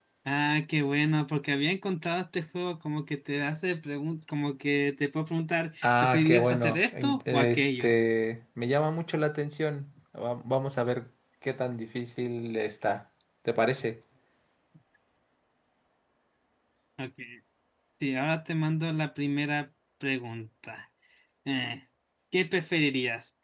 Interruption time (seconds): 5.8 s

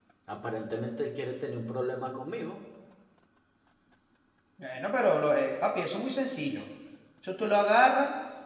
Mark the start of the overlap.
none

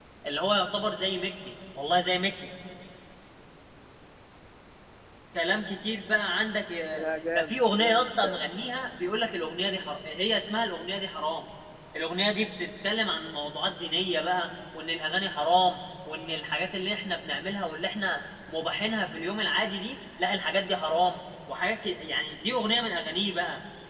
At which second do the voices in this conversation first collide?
6.9 s

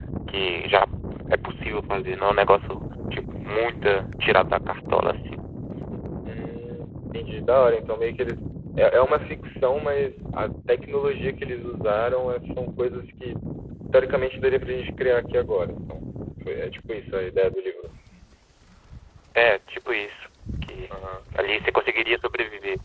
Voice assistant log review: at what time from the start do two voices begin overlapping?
none

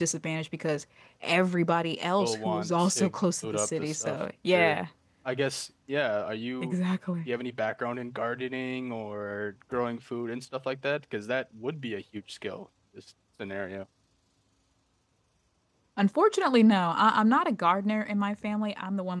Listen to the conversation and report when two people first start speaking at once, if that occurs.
2.2 s

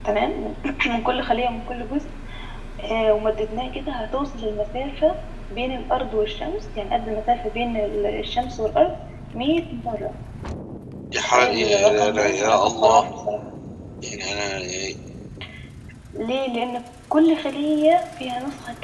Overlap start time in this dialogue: 11.2 s

